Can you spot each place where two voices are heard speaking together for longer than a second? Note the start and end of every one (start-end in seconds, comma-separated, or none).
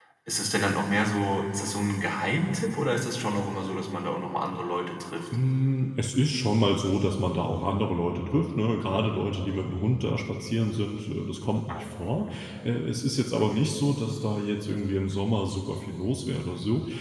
none